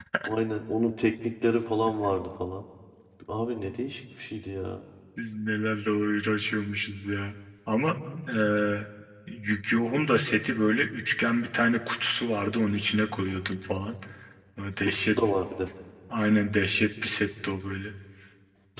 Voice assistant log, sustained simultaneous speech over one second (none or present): none